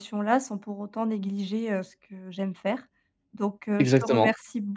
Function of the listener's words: listening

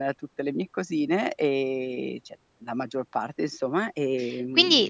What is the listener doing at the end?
taking over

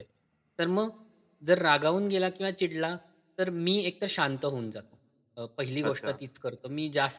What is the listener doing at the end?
listening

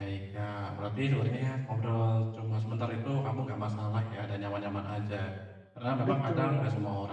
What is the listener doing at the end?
listening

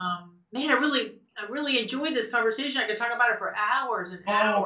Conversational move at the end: taking over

